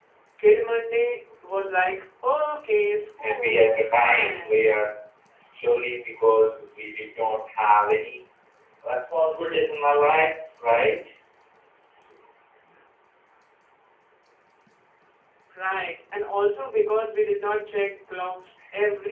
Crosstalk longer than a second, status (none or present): present